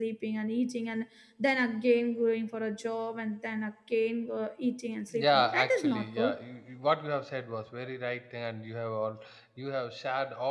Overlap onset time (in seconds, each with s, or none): 5.1 s